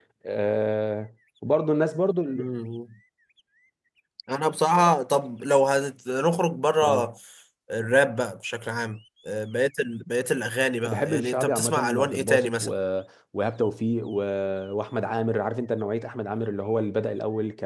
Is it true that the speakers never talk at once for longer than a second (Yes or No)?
No